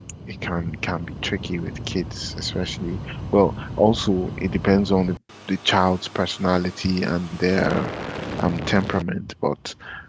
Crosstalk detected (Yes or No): No